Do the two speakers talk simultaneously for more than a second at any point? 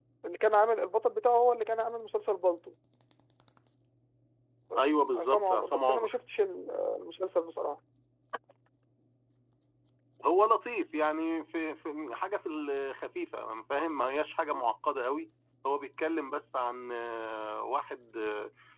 Yes, from 4.8 s

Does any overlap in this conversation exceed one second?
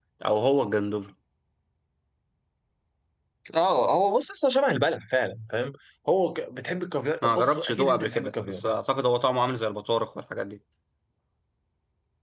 Yes, from 7.2 s

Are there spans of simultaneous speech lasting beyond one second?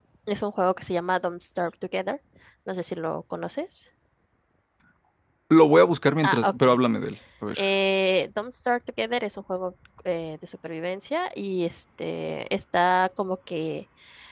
No

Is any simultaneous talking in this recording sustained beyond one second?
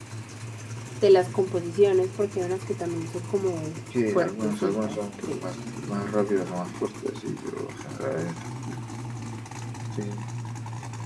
Yes, from 3.9 s

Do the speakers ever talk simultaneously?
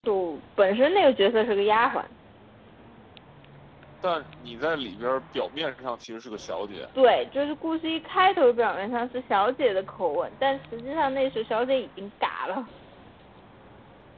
No

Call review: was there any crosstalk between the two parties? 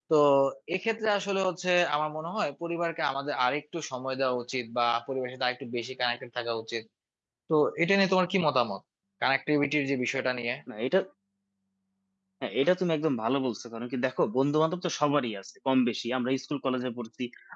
No

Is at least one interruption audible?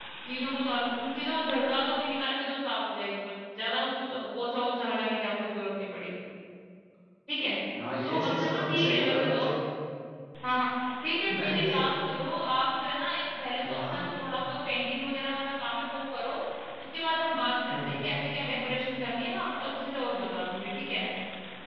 Yes, from 8.0 s

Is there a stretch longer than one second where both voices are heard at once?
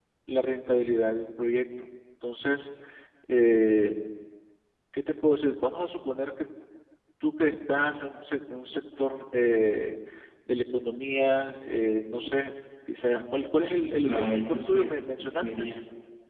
Yes, from 14.0 s

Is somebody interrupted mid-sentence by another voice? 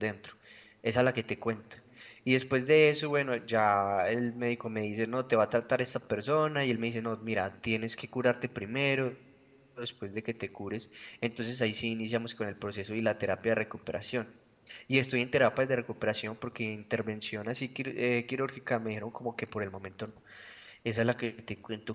No

